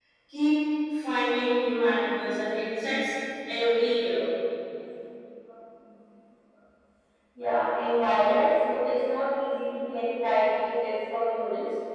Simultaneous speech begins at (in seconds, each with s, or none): none